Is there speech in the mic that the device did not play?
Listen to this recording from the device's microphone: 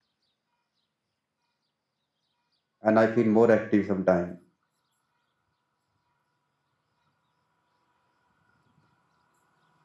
Yes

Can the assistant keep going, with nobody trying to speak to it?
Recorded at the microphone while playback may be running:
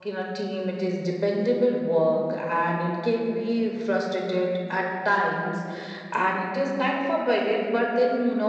No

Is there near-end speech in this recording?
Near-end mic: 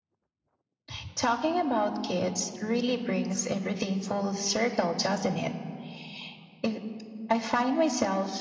No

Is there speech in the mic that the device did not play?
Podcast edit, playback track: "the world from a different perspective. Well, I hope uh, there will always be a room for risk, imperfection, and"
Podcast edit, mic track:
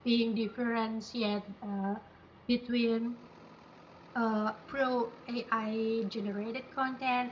Yes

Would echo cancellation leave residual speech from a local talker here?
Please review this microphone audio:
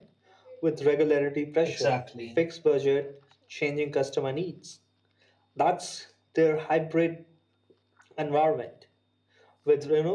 Yes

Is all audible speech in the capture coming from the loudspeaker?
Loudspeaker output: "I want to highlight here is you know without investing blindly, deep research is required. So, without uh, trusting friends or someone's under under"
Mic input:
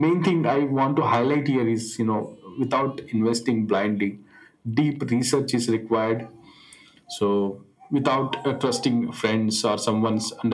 Yes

